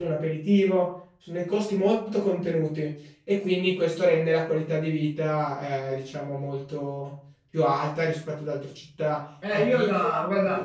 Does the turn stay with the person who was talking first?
No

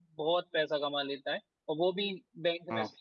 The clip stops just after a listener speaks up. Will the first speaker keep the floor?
Yes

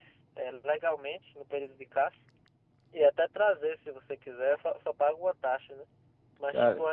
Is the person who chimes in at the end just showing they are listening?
Yes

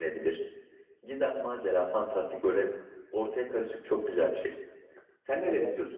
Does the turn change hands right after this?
Yes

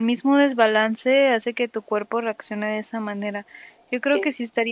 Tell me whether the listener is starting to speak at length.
No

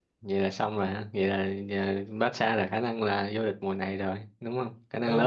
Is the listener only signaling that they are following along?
No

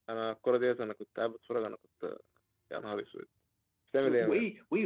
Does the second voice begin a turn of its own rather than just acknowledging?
Yes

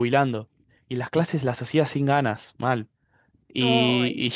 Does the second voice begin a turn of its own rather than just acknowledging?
No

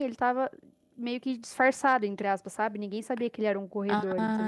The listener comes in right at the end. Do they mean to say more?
Yes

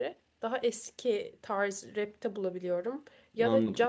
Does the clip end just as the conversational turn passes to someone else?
No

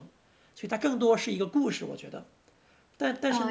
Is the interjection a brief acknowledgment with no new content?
Yes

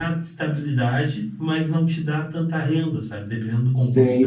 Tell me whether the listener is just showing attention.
Yes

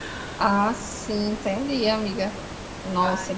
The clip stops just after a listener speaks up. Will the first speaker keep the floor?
Yes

